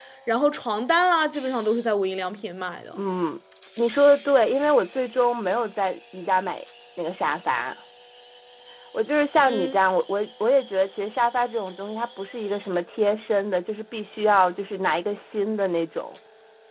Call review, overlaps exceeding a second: none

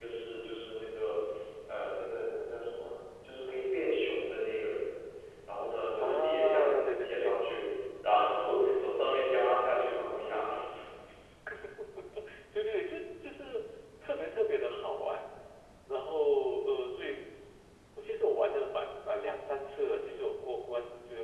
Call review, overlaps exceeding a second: present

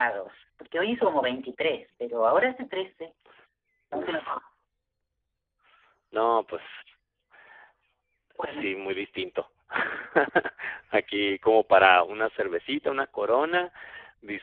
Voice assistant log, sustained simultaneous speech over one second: none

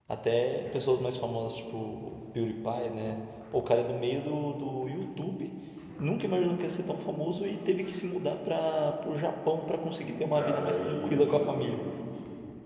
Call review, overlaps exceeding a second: present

